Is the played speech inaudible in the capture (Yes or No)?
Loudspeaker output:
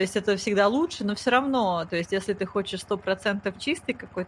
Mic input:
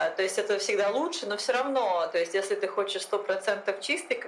No